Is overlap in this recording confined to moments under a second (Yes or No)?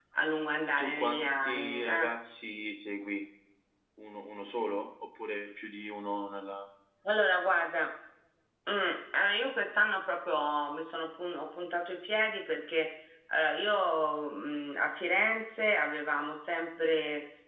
No